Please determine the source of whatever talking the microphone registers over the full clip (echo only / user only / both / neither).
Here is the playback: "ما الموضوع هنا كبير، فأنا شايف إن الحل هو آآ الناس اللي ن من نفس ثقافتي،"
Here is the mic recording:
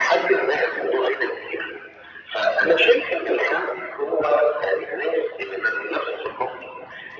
echo only